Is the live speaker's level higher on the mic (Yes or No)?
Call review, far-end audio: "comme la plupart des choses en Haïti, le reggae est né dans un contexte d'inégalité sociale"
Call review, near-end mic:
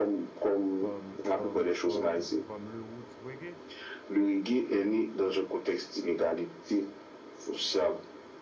No